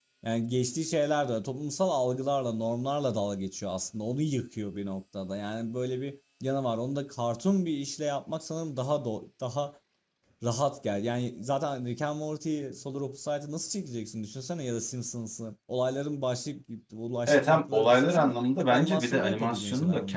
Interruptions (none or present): present